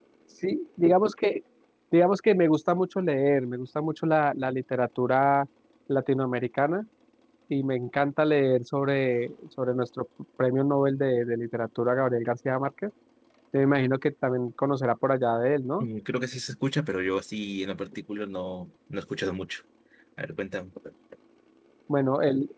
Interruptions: none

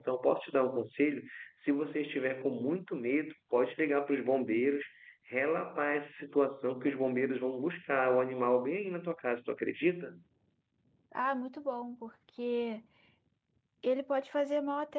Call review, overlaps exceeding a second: none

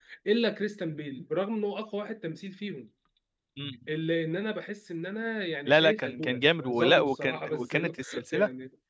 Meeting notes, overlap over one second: present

